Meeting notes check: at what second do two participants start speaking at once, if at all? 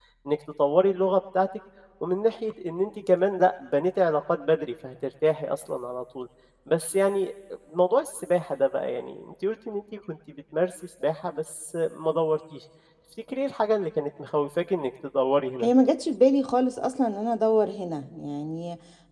none

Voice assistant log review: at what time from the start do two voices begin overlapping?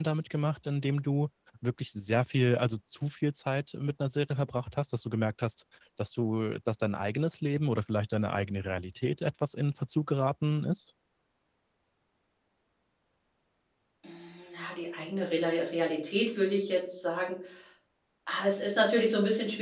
none

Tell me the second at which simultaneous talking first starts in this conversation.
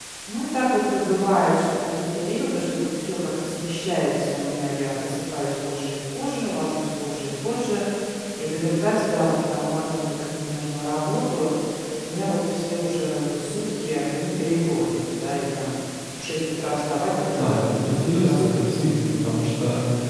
17.4 s

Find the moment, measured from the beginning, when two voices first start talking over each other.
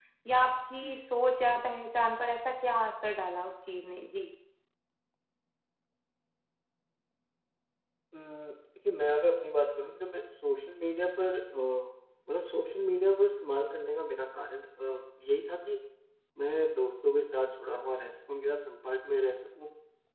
none

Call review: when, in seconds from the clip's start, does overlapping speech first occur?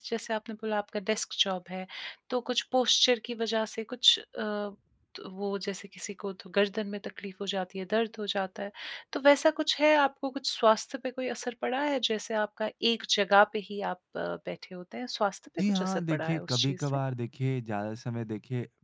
15.6 s

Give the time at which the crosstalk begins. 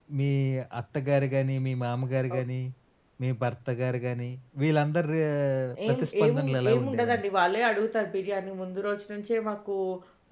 5.9 s

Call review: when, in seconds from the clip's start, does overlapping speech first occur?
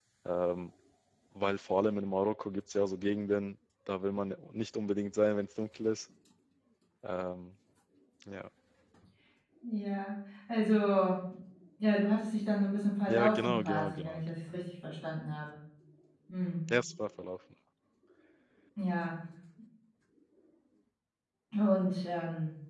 13.1 s

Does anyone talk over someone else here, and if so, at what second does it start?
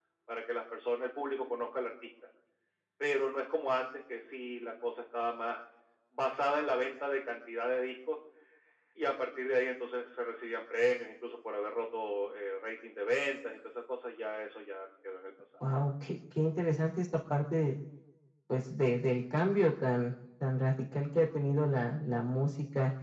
none

